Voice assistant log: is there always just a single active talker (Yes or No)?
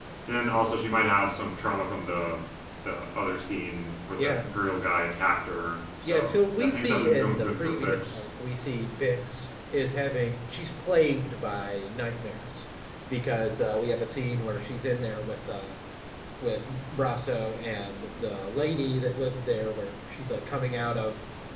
No